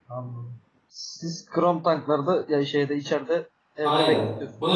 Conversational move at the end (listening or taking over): taking over